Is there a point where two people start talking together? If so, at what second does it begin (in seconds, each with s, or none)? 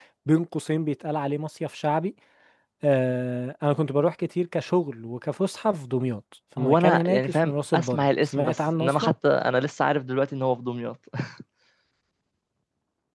6.6 s